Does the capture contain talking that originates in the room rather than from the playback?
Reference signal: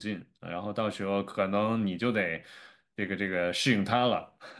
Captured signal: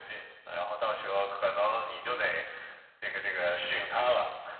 Yes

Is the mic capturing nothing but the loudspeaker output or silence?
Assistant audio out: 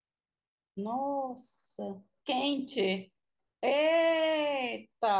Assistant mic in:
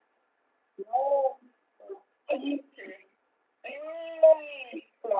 Yes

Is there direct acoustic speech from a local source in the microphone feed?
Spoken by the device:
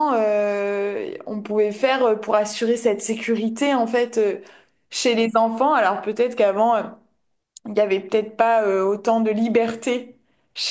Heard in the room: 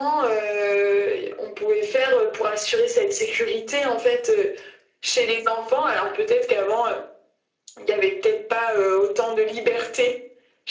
No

